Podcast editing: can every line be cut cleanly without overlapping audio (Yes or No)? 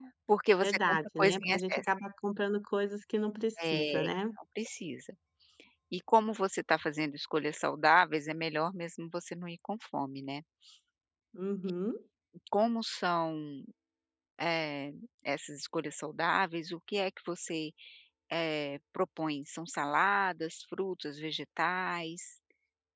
No